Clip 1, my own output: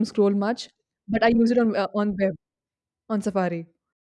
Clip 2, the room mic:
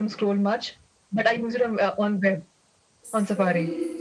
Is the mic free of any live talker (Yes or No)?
No